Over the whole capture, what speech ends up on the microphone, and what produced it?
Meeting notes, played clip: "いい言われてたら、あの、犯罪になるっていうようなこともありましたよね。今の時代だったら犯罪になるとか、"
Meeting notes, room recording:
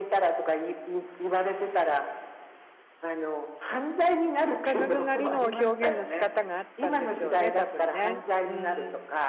both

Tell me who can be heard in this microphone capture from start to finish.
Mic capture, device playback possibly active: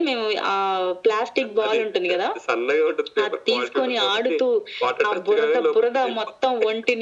echo only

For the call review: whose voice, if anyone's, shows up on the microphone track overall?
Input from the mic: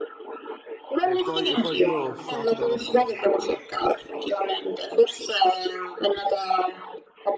both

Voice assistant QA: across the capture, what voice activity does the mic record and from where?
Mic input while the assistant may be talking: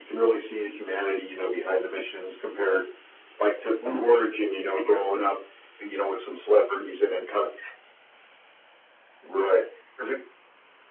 both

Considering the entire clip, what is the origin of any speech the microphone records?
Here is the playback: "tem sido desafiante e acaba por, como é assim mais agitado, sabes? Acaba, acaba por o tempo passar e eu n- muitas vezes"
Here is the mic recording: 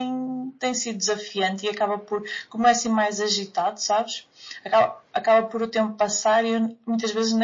echo only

